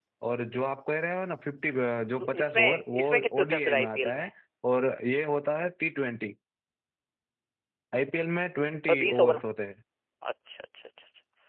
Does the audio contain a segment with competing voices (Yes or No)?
Yes